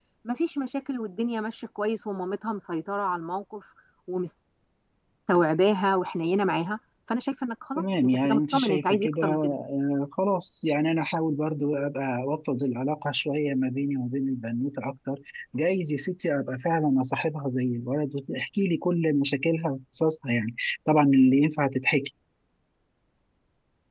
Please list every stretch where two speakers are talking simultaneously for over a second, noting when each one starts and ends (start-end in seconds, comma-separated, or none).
7.8-9.6